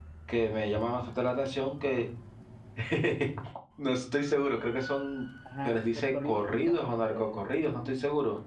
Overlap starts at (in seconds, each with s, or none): 5.4 s